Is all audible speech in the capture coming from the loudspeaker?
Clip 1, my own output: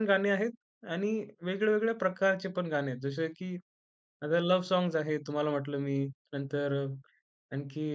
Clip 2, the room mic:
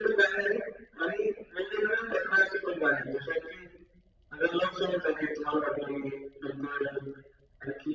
Yes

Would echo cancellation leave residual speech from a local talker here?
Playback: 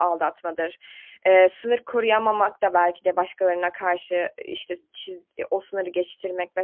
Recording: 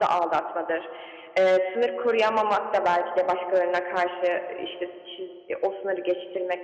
No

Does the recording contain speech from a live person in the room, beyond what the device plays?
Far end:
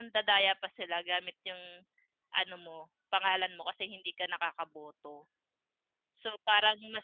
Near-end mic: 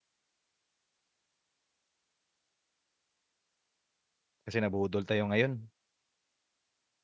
Yes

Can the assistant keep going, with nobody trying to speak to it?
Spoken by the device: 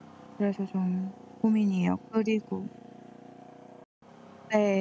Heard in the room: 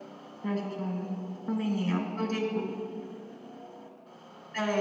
Yes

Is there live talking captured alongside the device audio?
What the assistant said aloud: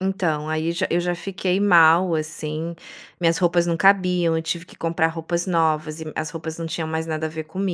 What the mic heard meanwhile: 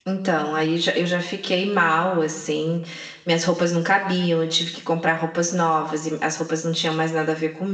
No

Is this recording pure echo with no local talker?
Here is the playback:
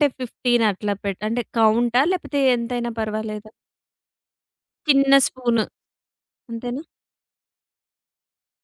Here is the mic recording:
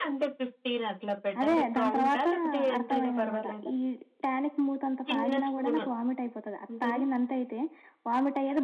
No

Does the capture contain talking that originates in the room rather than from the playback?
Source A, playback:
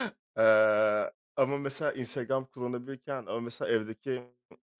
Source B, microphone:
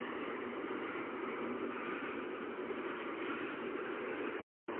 No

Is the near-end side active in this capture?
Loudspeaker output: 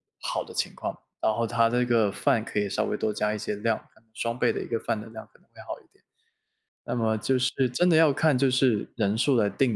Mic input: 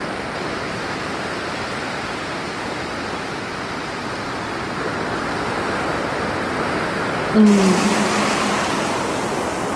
Yes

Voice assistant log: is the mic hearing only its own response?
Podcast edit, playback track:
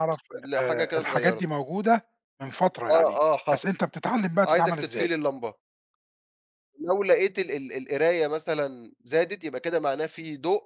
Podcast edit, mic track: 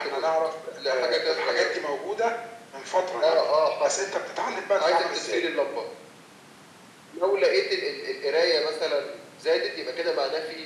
Yes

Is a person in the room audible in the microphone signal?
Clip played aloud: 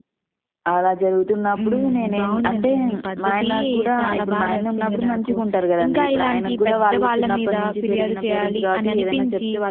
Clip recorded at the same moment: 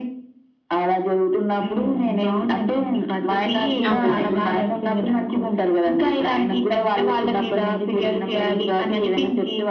Yes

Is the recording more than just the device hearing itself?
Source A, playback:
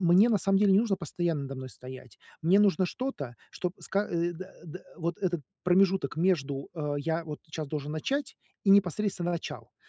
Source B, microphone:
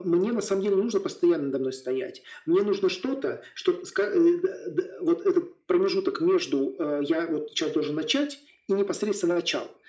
No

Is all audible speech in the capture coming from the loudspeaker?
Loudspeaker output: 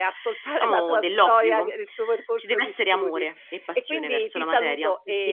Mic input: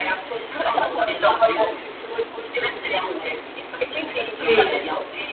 No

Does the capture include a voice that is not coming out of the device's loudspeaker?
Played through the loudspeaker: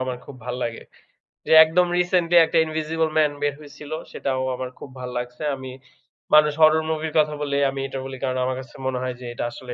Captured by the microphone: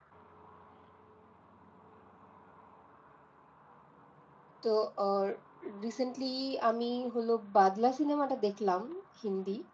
Yes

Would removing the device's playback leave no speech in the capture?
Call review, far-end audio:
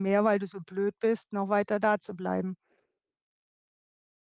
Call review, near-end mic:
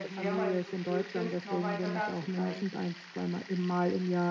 No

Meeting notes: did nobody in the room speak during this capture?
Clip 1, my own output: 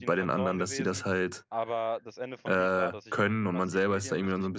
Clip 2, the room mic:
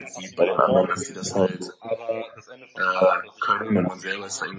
Yes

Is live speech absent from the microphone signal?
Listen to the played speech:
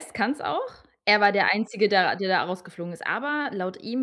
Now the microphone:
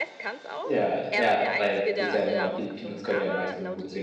No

